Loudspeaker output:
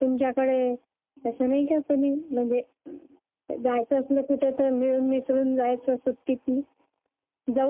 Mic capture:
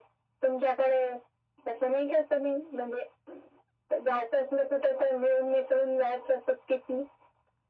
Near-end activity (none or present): none